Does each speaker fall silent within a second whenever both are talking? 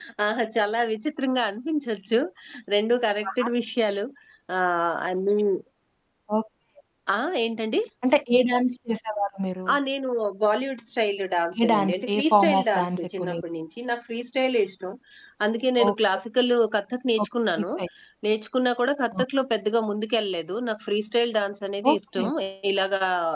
No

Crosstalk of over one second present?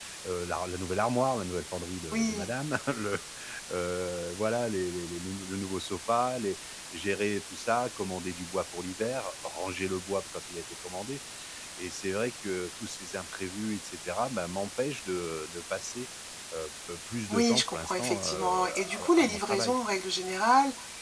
Yes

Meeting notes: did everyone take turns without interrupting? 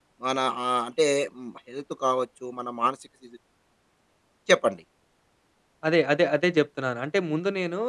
Yes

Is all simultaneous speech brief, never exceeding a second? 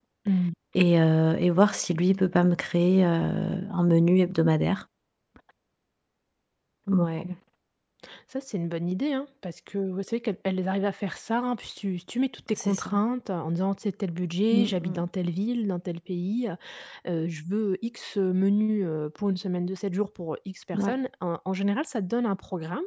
Yes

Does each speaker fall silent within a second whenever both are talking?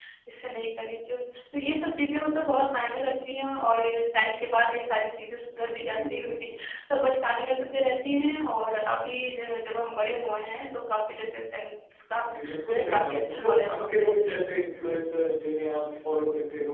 No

